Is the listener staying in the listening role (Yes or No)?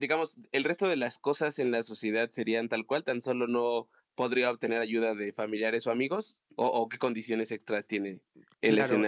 No